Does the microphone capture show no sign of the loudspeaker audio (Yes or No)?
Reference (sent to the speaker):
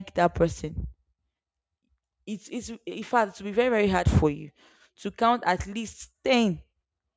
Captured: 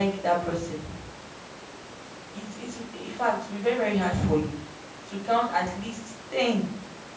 No